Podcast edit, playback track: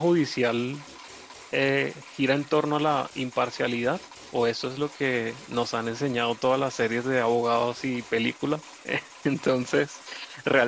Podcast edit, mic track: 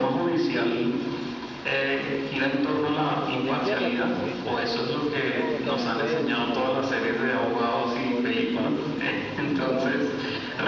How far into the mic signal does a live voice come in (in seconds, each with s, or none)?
2.7 s